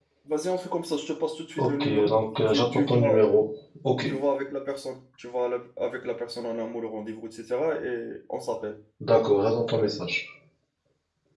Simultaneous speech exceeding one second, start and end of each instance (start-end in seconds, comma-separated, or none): 1.6-3.3